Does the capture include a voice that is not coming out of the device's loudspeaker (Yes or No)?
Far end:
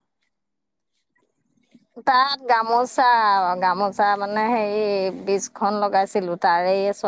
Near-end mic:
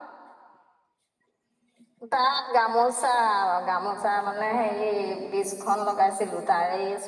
No